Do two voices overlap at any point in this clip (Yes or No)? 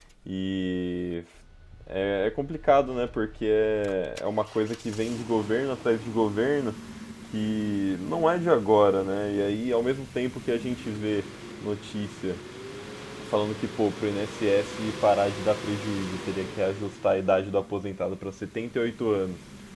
No